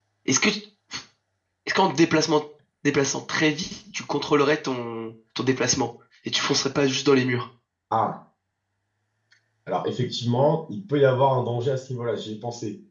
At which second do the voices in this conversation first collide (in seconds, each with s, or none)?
none